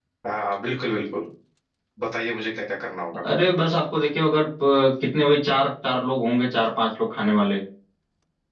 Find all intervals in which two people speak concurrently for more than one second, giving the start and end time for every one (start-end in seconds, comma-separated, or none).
none